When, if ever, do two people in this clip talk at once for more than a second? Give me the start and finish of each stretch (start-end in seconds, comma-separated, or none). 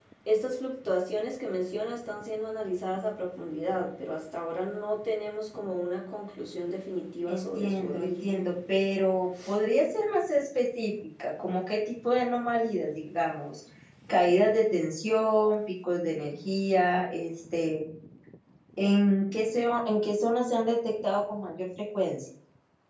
7.3-8.5